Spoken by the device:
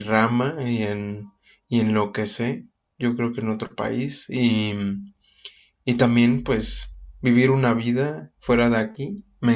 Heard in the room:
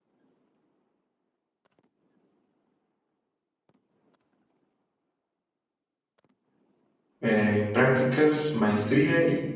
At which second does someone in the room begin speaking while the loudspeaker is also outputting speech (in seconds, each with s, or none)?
7.2 s